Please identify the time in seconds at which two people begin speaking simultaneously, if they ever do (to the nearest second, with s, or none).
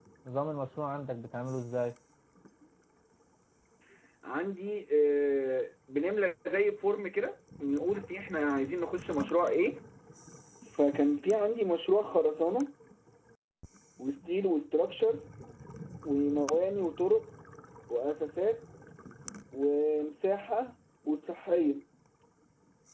none